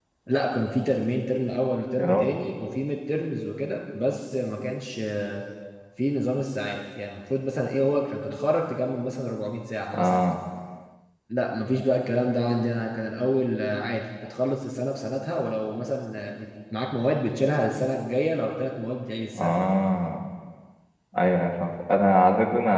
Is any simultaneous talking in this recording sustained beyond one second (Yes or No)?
No